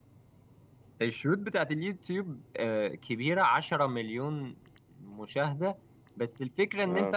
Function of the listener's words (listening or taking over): listening